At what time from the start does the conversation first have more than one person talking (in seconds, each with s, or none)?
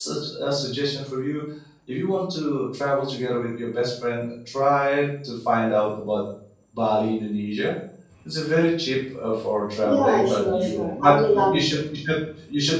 9.8 s